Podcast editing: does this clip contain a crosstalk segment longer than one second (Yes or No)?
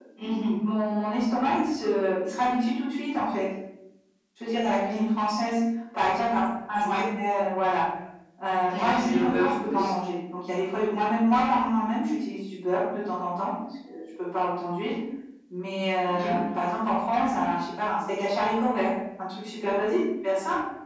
Yes